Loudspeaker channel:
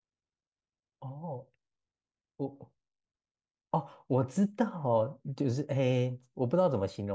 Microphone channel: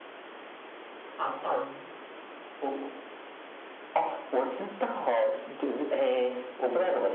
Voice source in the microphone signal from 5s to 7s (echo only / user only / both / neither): echo only